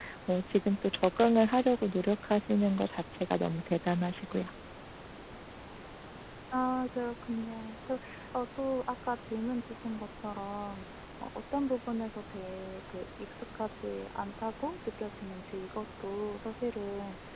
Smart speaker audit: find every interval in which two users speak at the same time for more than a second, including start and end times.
none

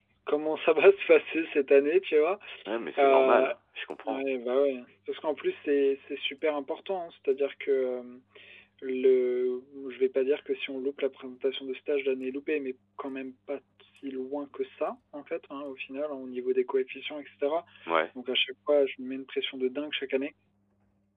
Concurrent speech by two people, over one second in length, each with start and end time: none

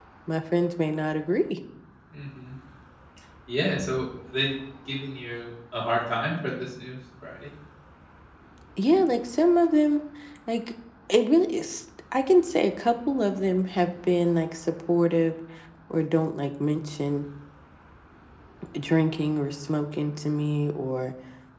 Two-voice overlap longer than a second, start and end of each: none

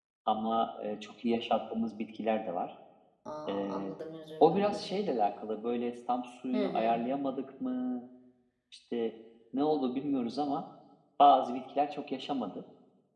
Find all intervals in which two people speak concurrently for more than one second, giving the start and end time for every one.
none

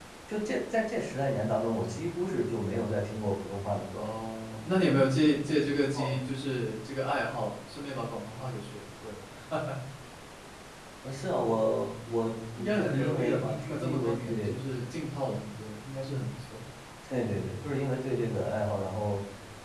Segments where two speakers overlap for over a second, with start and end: 12.6-14.6

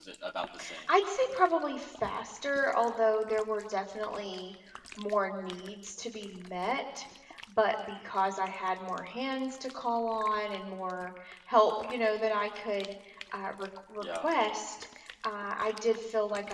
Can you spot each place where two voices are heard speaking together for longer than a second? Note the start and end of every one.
none

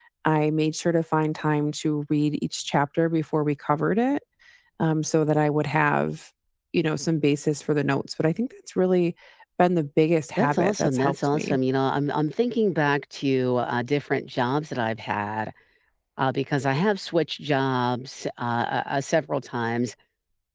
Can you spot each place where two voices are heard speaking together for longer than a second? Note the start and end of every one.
10.4-11.6

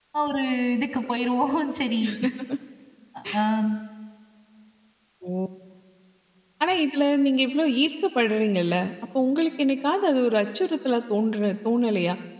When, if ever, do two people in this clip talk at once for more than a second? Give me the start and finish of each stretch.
none

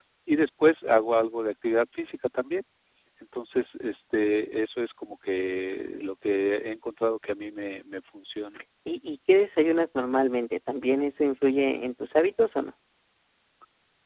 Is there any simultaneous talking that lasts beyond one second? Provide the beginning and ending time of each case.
none

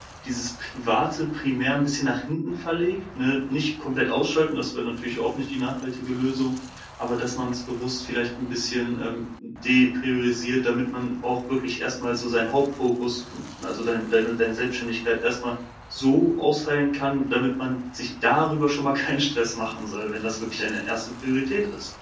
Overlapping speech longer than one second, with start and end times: none

